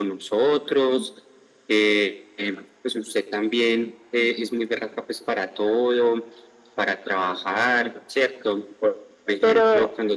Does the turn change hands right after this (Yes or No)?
No